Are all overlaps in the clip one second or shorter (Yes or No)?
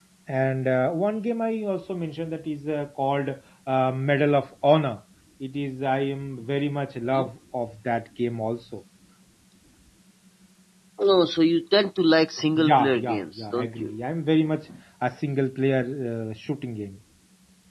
No